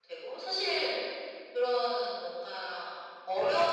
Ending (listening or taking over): listening